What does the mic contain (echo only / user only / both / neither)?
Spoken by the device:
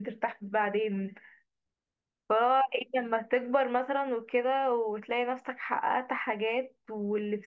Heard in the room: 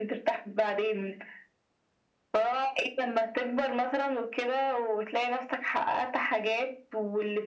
echo only